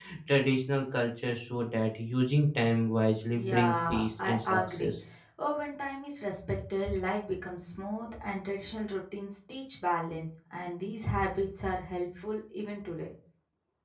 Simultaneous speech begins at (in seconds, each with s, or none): 3.3 s